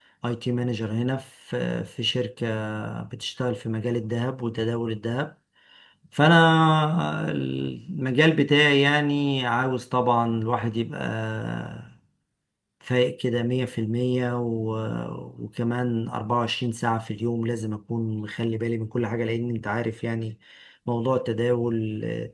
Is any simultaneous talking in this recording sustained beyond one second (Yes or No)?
No